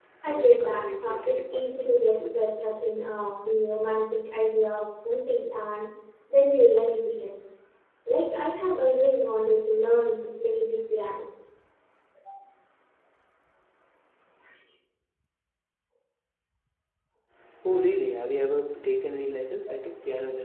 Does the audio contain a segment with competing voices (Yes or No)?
Yes